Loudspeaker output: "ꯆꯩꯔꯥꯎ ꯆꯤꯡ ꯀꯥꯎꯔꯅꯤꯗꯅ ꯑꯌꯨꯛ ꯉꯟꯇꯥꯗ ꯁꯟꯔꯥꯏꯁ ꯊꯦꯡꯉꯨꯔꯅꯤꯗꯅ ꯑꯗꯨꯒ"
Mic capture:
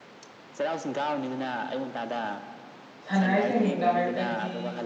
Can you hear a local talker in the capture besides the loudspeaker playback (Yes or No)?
Yes